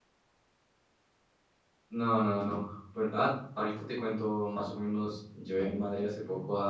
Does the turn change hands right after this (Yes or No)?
No